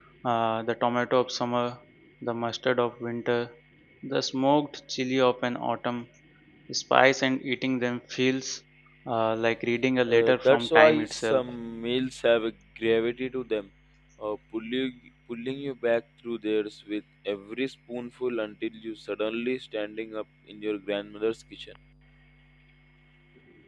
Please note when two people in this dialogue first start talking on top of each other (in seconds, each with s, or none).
10.1 s